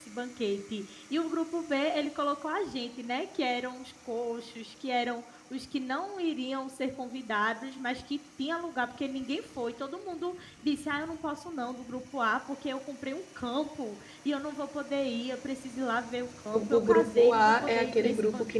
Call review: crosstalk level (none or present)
present